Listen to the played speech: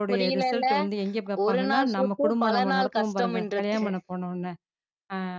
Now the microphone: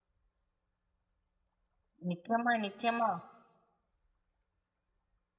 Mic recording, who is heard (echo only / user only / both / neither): user only